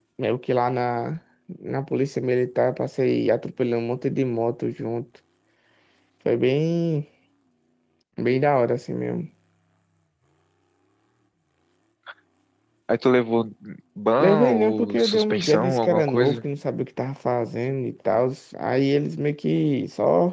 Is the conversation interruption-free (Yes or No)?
No